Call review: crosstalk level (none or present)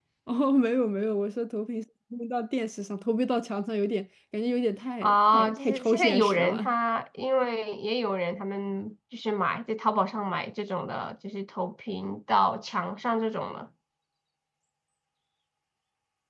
present